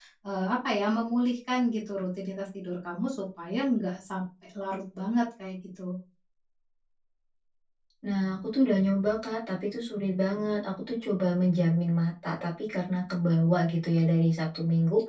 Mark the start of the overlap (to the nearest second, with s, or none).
none